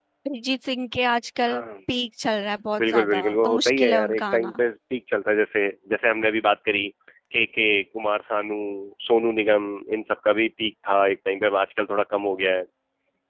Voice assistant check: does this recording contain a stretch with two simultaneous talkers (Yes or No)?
Yes